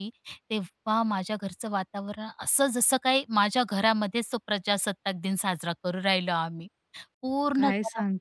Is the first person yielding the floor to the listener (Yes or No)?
Yes